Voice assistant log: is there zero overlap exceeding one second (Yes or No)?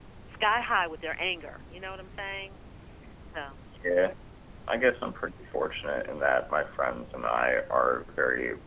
Yes